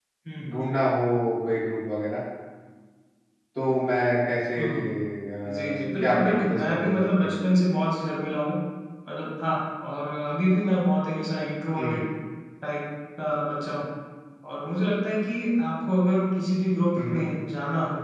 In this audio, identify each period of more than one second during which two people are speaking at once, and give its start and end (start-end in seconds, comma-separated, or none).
5.5-7.6